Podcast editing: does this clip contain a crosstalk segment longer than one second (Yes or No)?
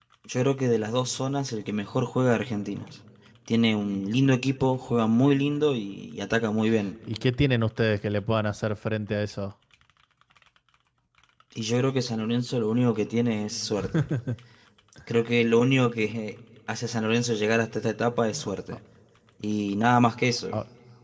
No